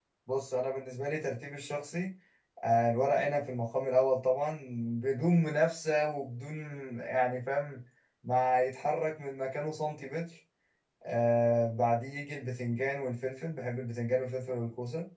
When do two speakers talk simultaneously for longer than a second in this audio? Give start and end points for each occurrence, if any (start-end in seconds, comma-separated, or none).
none